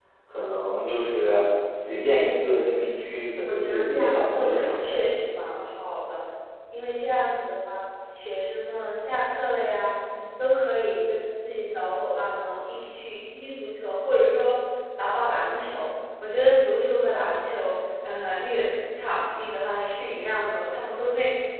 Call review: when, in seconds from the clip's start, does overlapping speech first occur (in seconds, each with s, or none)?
3.4 s